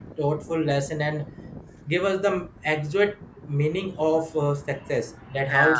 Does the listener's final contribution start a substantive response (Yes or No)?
Yes